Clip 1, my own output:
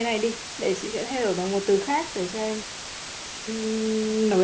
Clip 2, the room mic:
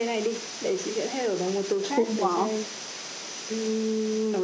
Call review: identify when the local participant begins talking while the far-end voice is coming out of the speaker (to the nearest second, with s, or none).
2 s